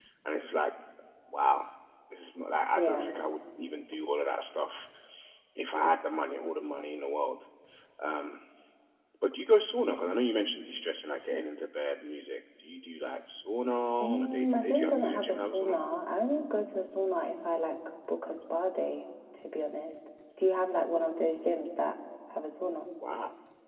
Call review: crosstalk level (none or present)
present